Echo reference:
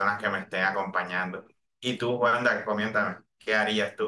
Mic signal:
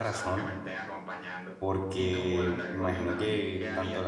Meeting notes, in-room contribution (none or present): present